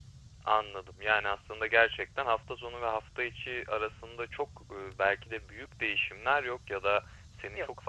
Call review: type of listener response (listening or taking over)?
listening